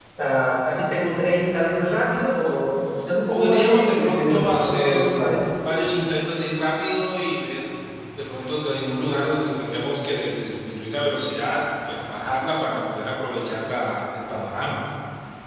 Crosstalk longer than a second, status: present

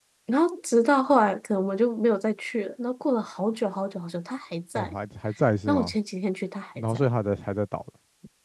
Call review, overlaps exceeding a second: none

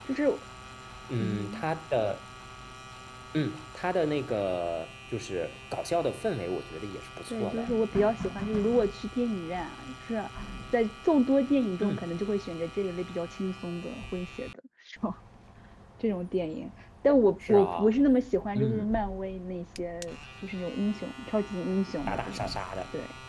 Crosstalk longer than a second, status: none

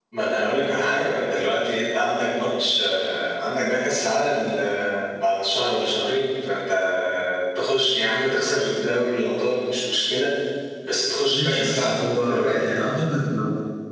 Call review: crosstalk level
present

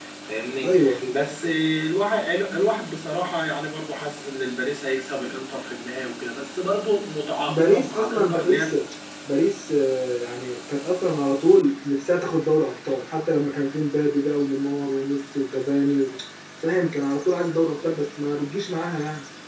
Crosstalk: present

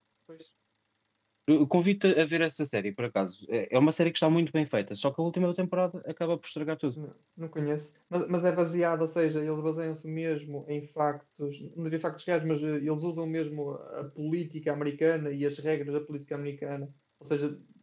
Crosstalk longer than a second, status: none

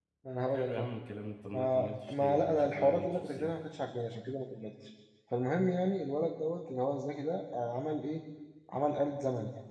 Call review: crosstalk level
present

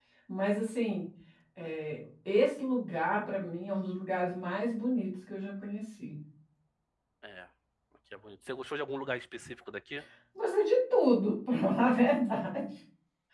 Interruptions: none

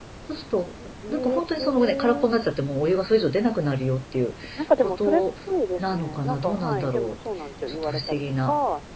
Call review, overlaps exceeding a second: present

